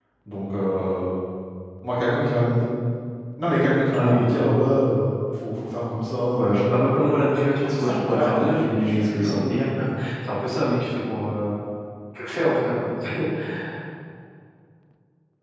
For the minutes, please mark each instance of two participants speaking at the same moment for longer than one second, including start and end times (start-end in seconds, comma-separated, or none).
7.7-9.4